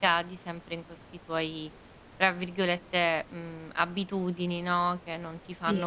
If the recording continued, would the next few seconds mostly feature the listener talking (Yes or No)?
No